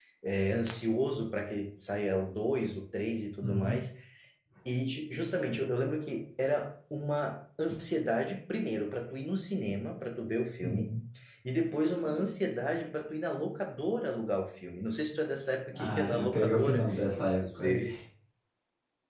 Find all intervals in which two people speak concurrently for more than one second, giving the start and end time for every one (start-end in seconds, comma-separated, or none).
15.7-17.9